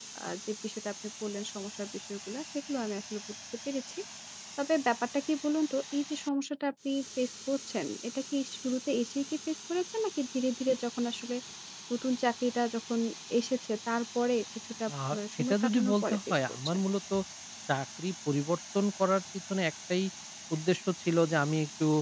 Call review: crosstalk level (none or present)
present